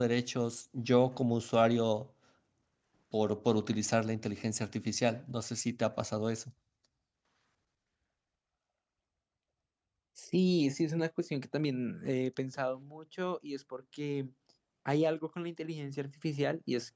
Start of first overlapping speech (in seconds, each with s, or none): none